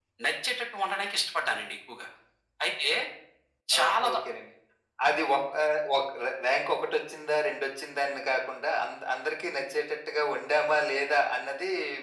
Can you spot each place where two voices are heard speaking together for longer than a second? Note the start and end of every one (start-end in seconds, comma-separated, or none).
none